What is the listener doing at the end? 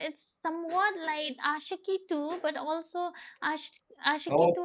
taking over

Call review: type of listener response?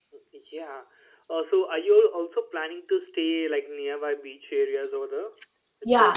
taking over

